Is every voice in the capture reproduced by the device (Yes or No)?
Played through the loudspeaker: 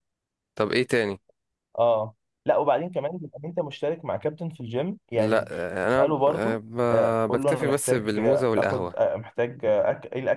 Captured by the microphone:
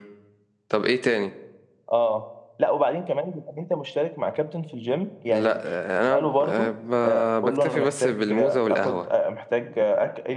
Yes